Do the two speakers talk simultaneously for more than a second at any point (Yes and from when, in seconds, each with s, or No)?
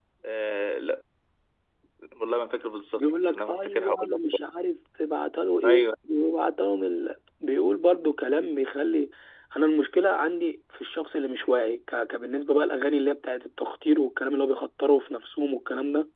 Yes, from 3.0 s